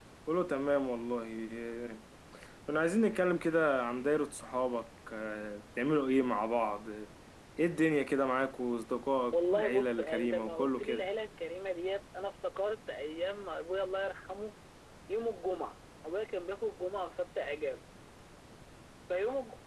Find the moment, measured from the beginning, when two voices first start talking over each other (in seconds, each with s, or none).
9.3 s